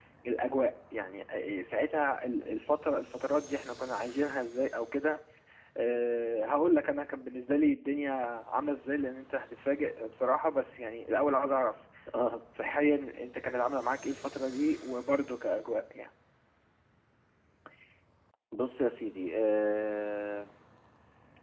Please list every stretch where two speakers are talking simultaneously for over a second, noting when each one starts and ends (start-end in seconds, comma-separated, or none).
none